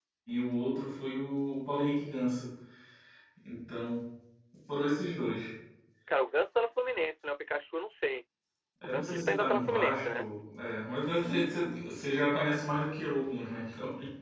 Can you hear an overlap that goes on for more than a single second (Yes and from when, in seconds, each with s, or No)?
Yes, from 8.8 s